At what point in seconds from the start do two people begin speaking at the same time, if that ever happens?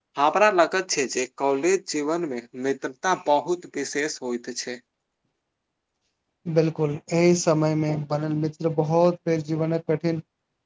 none

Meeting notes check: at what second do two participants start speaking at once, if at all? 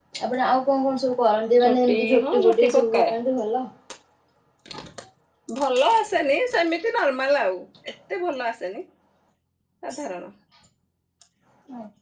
1.6 s

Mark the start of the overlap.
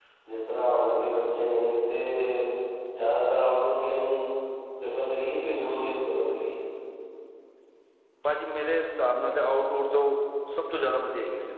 none

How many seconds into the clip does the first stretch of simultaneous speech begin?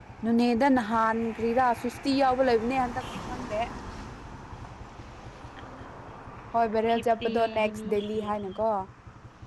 6.9 s

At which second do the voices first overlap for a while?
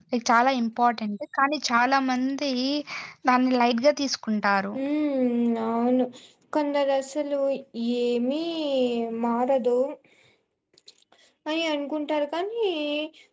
none

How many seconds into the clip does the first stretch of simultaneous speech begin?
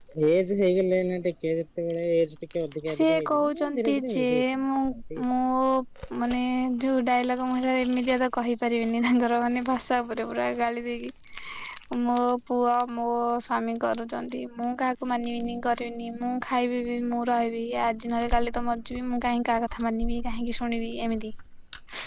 2.9 s

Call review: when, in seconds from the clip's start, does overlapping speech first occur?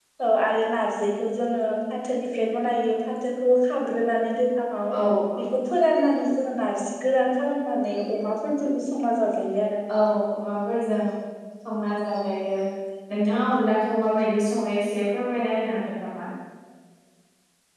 none

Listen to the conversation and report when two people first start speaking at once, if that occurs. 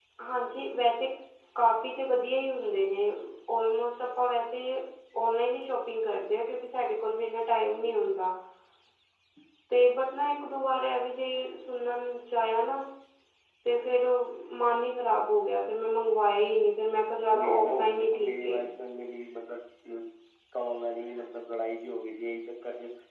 17.3 s

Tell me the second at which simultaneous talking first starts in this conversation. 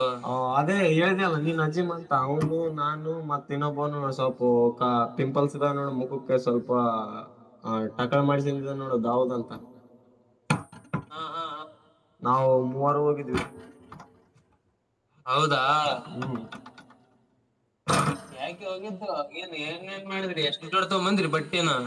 none

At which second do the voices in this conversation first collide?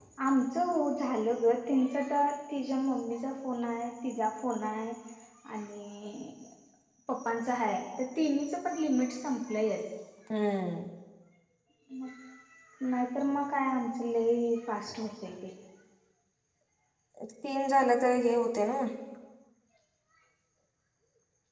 none

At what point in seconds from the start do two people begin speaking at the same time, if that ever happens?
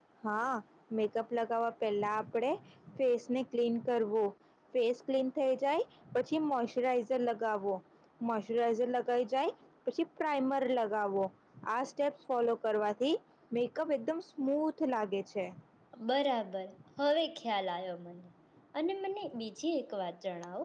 none

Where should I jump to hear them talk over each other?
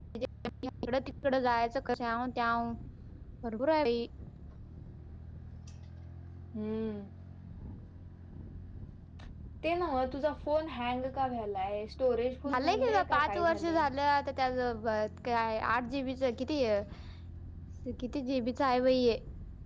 12.4 s

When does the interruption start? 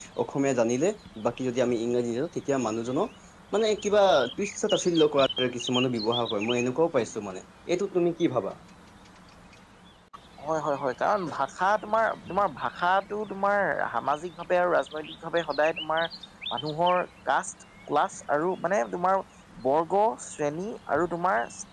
none

